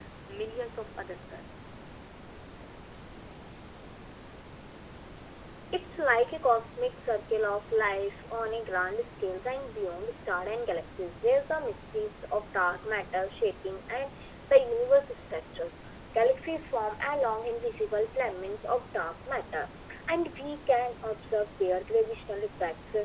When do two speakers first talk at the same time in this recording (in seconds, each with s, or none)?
none